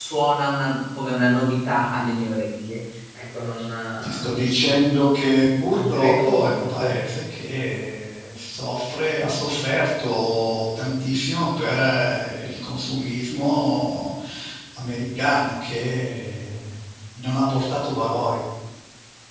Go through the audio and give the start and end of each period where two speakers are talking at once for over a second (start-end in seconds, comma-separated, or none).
5.7-7.0